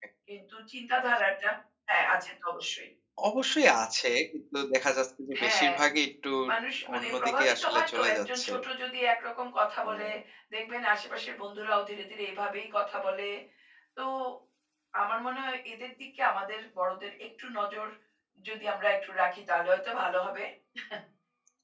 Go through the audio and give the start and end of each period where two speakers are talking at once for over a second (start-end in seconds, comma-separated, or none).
7.0-8.5